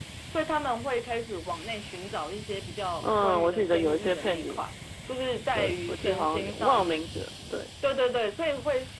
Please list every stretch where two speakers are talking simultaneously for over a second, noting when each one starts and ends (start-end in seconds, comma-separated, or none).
3.0-4.6, 5.5-7.0